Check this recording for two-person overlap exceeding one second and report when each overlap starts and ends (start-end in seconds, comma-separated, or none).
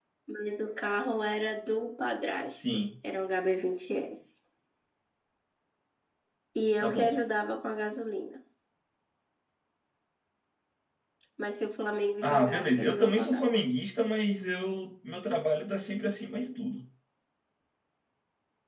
12.2-13.4